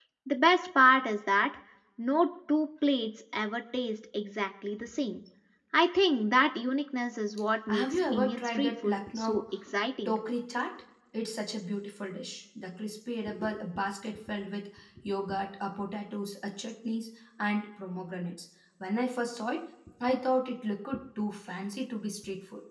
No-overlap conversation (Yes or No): No